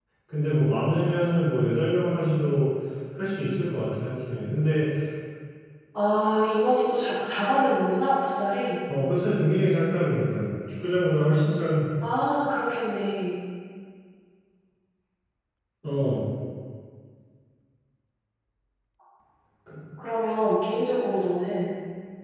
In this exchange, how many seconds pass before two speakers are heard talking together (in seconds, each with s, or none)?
none